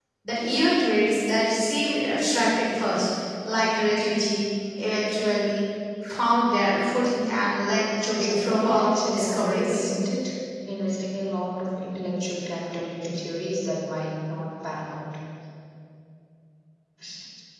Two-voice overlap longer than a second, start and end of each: 8.1-9.9

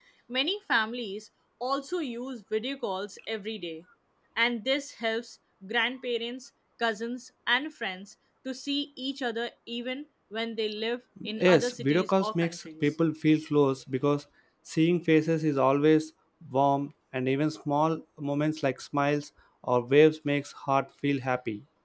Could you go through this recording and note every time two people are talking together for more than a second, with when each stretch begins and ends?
11.4-12.9

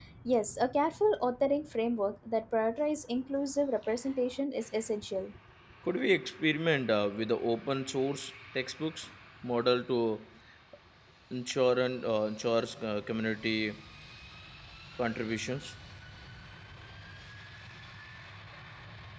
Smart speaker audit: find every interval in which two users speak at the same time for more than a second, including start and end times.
none

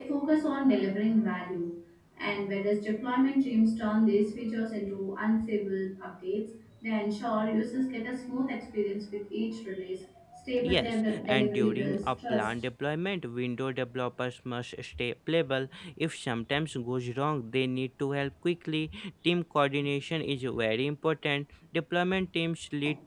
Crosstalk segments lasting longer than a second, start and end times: 10.6-12.5

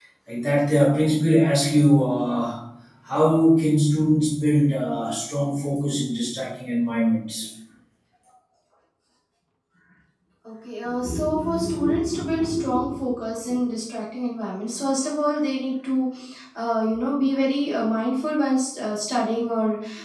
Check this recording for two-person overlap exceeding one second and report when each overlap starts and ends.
none

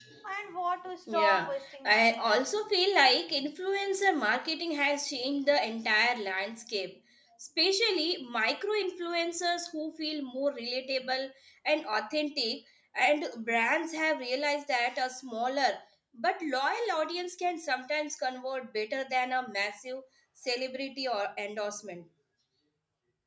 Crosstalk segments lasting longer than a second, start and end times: 1.1-2.4

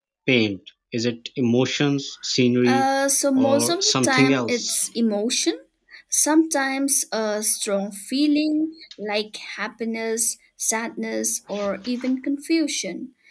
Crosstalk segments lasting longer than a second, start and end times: 3.4-4.8

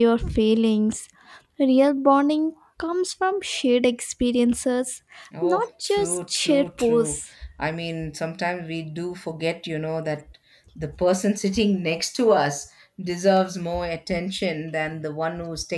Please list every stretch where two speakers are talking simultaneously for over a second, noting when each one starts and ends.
5.4-7.2

